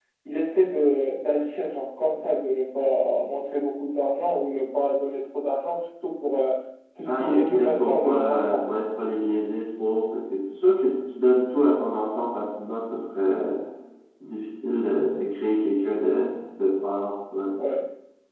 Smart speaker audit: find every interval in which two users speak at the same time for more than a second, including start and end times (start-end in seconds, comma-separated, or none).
7.0-8.6